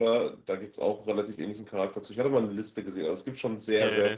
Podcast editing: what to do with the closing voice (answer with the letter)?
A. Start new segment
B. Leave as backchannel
A